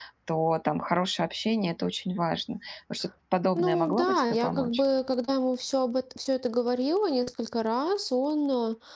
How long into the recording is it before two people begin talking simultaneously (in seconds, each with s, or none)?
3.6 s